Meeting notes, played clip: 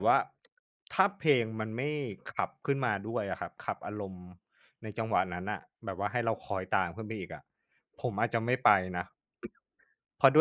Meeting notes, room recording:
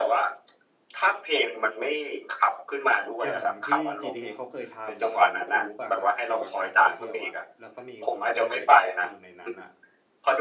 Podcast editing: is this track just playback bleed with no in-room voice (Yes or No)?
No